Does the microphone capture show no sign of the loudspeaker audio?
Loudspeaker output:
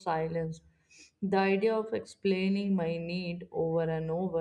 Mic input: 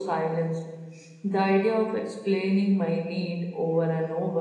No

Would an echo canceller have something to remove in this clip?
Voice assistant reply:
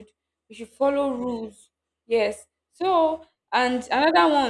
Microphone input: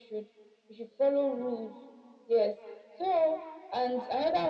Yes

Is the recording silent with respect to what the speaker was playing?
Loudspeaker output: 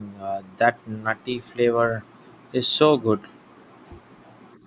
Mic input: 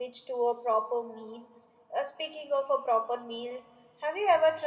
Yes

